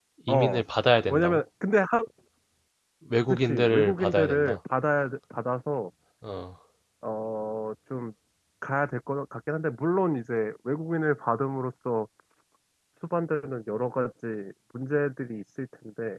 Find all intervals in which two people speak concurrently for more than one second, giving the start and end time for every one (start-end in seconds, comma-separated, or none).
3.3-4.6